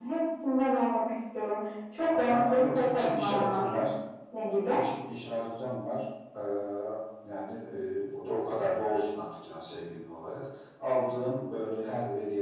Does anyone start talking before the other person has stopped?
Yes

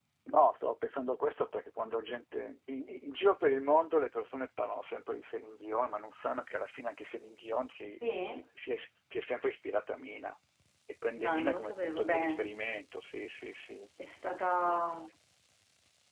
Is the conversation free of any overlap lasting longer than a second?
No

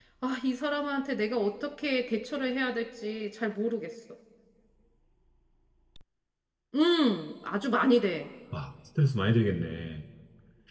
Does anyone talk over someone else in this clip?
No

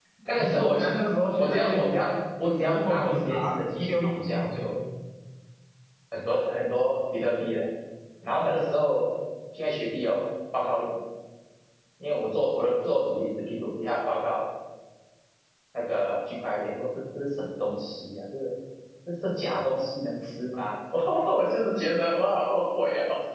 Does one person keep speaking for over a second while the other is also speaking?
Yes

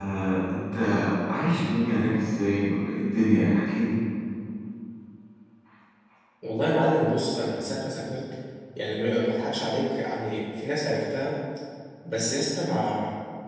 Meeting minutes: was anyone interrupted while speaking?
No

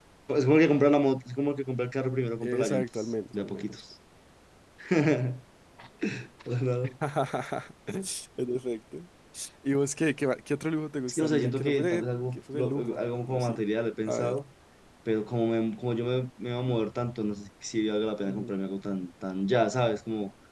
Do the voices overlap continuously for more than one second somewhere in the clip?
Yes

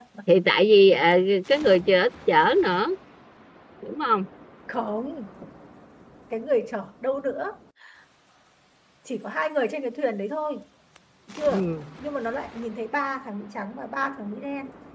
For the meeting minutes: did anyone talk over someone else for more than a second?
No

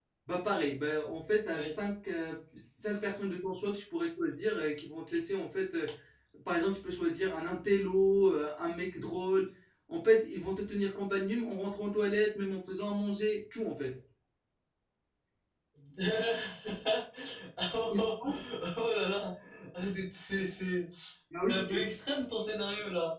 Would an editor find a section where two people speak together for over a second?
No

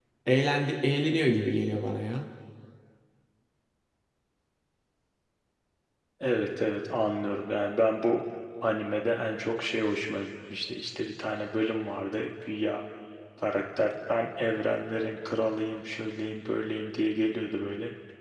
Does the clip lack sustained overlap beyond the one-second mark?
Yes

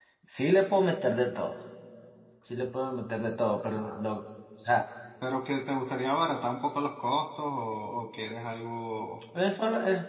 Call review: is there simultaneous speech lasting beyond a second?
No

